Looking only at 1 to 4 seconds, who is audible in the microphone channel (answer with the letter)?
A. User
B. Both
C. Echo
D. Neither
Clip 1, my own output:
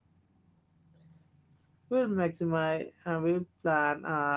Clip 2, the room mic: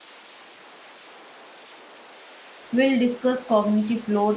A